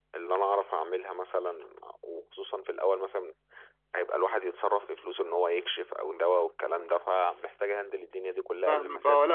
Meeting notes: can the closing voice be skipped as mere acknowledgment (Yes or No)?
No